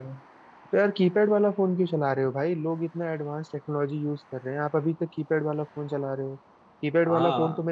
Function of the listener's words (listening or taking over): listening